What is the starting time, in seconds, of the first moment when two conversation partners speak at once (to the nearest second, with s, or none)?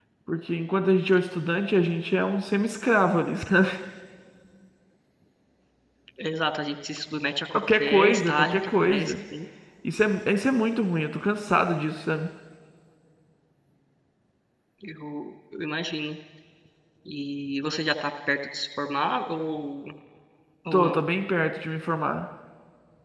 8 s